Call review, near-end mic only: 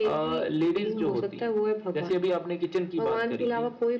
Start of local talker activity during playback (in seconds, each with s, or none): none